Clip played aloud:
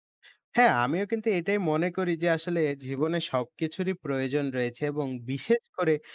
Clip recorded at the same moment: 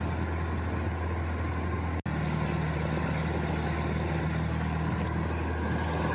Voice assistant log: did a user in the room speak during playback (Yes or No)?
No